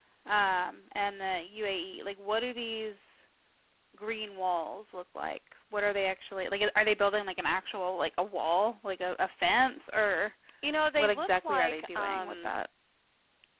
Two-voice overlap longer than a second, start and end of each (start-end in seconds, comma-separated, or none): 11.0-12.5